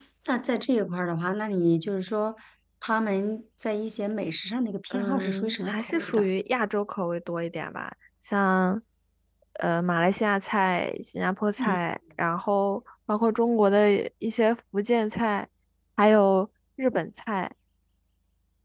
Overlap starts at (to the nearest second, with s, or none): 5 s